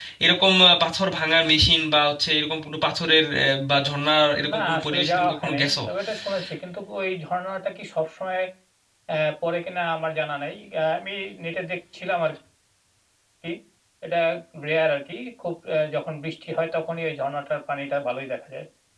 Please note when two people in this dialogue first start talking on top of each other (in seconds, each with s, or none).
4.3 s